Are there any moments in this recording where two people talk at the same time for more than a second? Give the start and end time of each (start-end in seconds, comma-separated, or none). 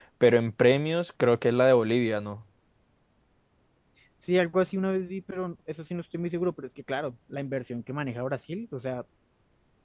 none